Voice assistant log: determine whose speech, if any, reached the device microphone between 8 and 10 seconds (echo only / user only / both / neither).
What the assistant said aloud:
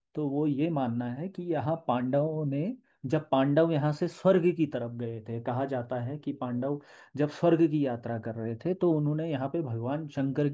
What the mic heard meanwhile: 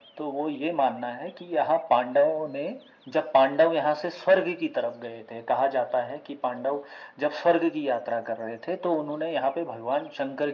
echo only